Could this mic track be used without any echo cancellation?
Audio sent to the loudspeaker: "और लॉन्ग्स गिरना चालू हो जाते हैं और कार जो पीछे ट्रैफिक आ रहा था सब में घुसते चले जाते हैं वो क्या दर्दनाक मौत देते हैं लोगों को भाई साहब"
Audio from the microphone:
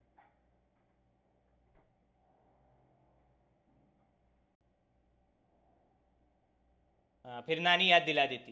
Yes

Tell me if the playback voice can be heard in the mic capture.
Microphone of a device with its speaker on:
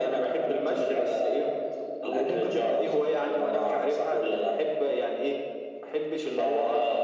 Yes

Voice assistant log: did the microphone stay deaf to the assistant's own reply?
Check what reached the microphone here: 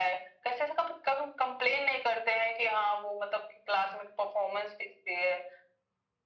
No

